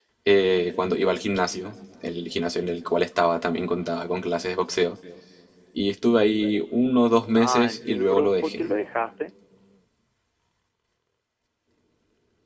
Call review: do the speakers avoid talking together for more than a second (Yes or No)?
No